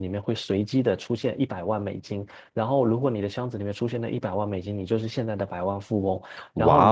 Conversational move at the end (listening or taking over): listening